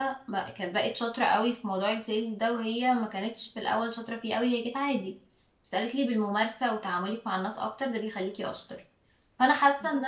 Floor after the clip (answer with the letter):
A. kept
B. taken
A